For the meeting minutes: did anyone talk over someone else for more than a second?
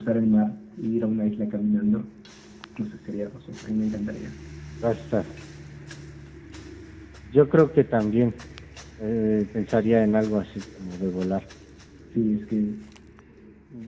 No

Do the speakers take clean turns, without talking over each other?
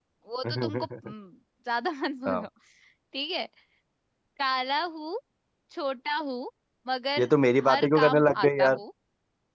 No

